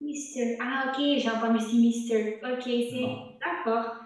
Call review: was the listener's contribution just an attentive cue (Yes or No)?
Yes